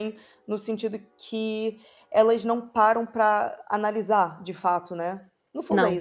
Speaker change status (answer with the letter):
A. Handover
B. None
B